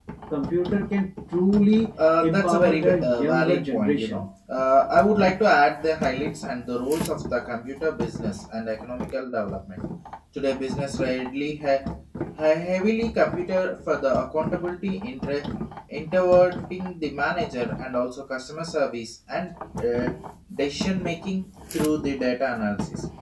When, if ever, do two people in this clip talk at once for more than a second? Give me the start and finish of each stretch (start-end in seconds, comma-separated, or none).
2.2-4.2